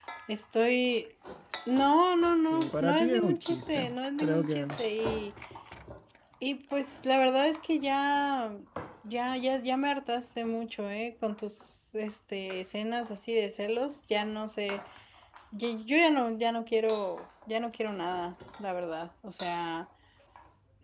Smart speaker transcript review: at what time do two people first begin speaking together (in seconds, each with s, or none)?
2.5 s